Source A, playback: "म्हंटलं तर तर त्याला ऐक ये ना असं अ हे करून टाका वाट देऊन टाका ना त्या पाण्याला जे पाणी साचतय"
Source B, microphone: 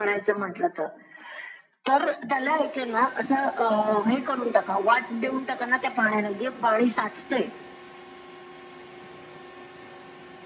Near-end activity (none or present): none